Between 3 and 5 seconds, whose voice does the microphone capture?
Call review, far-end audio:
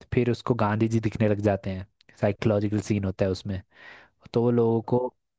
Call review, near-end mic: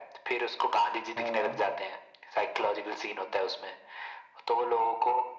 echo only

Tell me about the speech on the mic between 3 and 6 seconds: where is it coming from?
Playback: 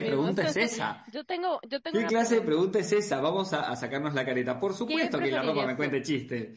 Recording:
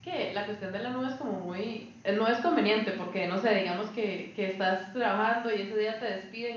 user only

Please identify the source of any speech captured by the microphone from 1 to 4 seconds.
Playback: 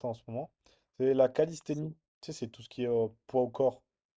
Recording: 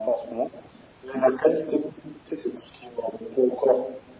echo only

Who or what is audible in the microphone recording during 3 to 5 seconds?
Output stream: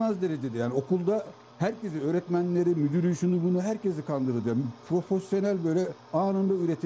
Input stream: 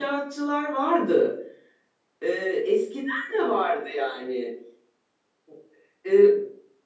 user only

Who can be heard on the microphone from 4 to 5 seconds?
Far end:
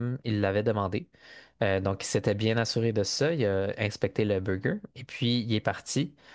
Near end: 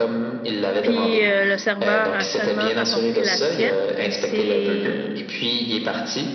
both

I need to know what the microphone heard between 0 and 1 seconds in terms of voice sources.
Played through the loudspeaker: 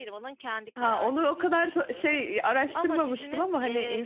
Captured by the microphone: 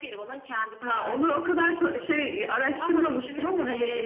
echo only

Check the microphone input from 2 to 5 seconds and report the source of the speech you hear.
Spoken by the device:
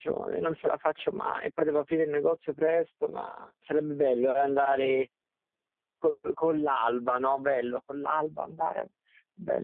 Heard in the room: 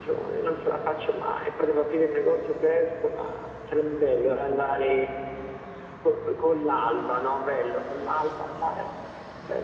echo only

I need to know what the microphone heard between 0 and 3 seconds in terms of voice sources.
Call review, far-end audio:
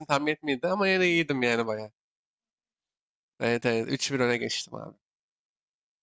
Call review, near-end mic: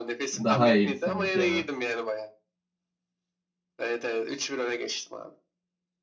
both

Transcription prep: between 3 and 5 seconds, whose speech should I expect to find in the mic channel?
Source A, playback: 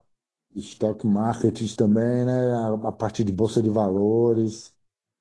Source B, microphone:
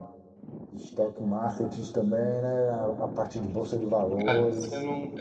both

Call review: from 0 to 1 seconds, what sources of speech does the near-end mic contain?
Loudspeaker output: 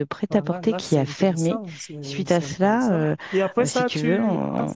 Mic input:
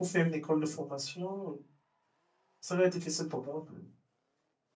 user only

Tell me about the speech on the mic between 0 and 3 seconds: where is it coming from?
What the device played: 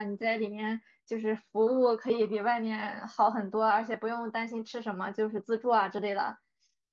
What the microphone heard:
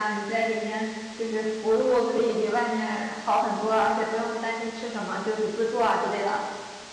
echo only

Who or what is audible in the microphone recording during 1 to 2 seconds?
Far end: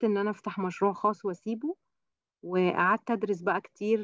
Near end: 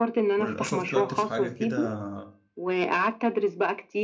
both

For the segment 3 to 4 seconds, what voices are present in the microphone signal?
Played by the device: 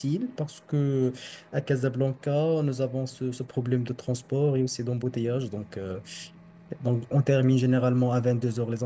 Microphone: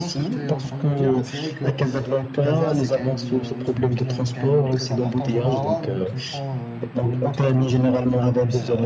both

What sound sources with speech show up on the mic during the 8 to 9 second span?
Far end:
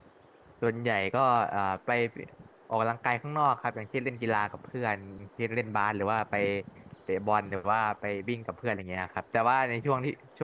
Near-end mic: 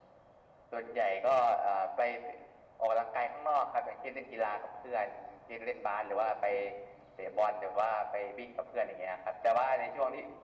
echo only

